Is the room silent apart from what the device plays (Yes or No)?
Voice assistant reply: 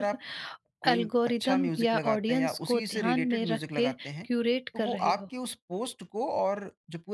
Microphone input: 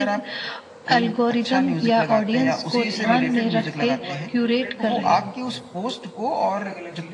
No